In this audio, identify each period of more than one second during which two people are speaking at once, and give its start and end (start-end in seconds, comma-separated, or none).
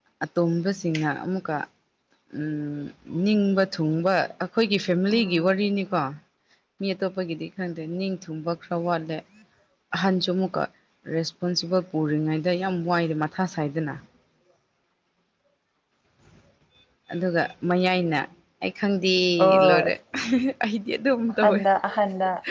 none